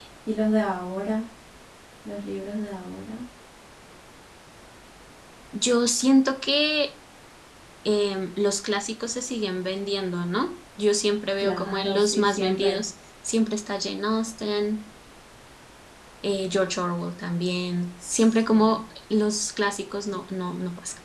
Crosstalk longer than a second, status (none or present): present